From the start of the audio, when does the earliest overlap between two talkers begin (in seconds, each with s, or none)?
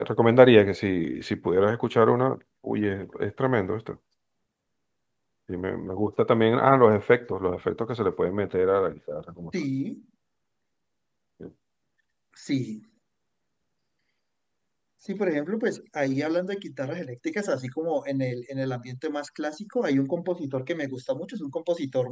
none